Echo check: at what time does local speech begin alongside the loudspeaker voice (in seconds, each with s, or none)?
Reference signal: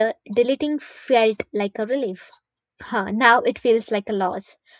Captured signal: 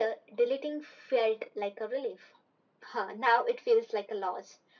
none